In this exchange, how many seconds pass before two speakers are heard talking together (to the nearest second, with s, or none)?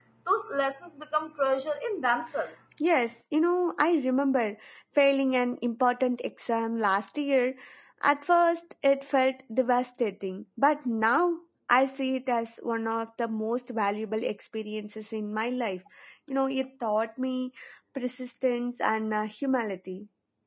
none